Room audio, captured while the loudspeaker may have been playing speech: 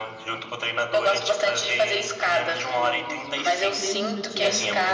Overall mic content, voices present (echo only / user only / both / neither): both